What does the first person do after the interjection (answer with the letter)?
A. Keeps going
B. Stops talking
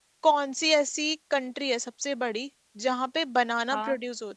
A